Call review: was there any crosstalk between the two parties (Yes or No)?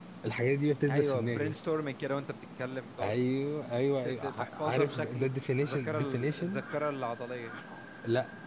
Yes